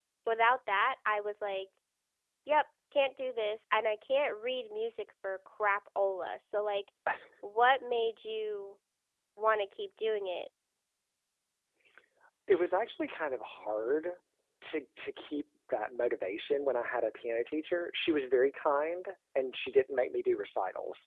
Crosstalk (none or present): none